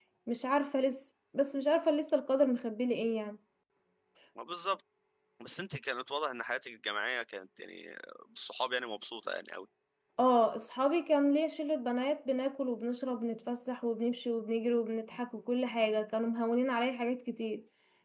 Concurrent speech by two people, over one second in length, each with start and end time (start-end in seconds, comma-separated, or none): none